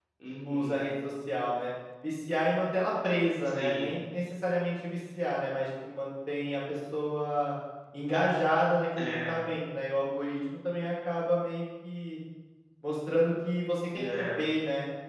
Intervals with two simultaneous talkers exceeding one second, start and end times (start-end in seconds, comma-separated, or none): none